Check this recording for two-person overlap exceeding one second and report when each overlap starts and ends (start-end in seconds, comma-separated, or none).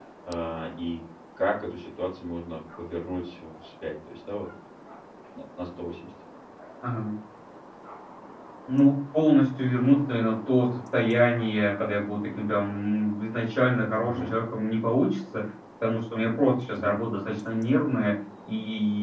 none